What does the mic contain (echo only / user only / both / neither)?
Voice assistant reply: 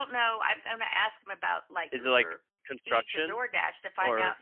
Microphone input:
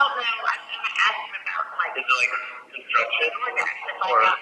echo only